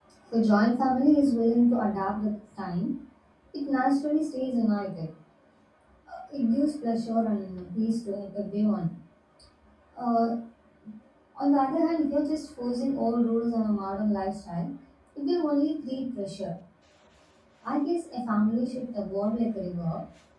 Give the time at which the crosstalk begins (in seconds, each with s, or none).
none